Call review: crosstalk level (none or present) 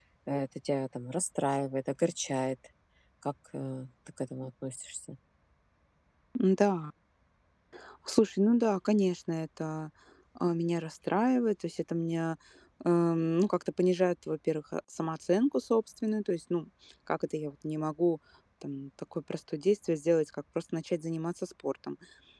none